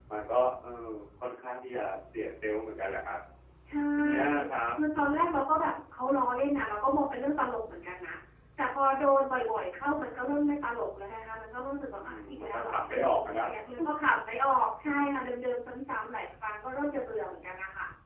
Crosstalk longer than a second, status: present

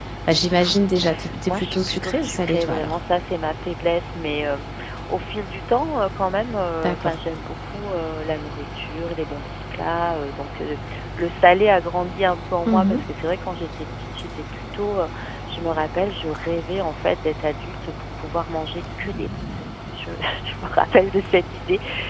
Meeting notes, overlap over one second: present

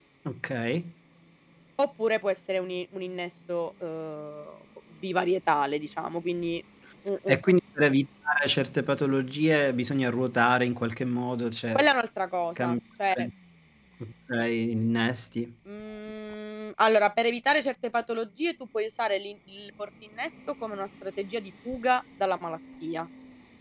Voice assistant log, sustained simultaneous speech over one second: none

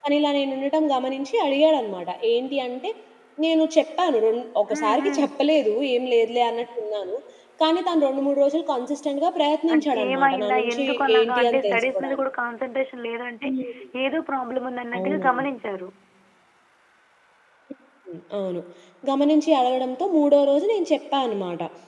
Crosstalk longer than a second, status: present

